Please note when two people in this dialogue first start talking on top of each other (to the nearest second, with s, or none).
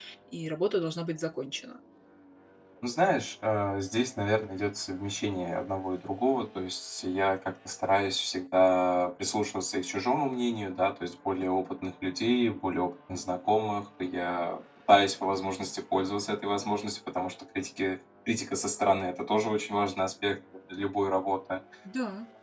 none